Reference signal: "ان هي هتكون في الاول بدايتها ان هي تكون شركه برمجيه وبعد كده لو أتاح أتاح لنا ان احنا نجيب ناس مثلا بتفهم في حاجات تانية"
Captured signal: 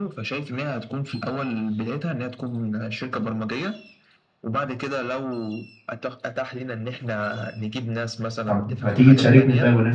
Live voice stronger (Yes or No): Yes